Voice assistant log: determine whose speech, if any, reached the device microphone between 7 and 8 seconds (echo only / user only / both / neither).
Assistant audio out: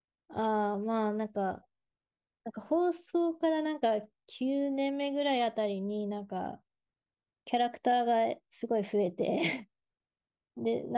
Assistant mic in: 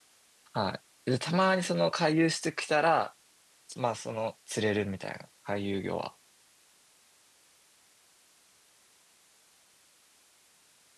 neither